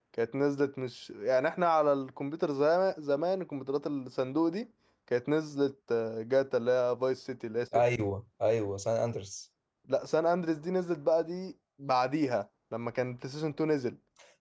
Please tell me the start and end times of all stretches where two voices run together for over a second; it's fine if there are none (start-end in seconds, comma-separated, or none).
none